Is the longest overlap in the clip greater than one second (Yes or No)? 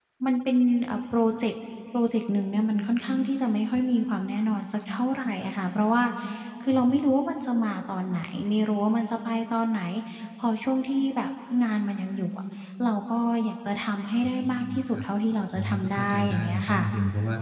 Yes